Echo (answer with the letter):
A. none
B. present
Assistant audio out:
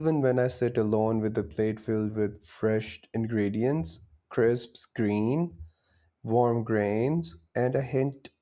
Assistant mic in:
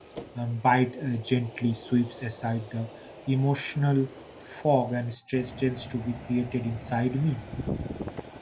A